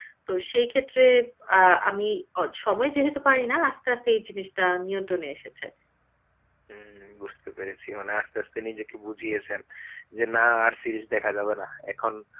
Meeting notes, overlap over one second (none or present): none